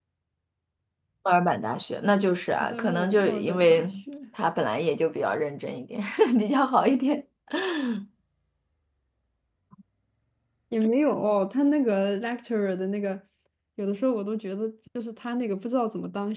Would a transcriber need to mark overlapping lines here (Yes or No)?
Yes